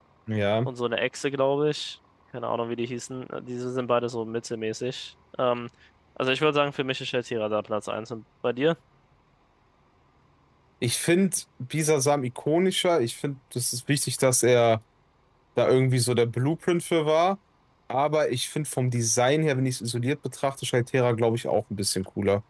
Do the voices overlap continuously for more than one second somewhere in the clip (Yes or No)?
No